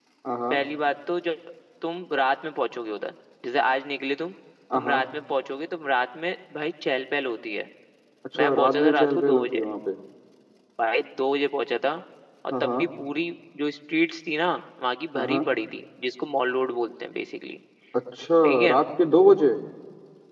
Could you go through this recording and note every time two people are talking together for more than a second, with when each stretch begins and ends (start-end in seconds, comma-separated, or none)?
8.4-9.7